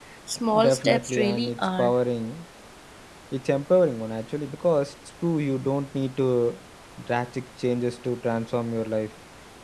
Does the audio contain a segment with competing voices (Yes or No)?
Yes